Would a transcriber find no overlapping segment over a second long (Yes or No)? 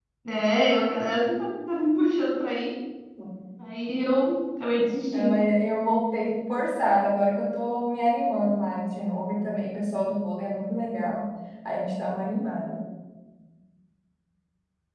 Yes